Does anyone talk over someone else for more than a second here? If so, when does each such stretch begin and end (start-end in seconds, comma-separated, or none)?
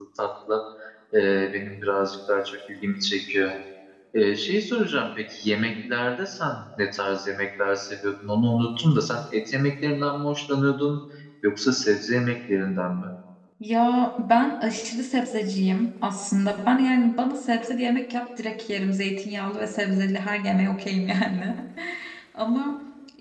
none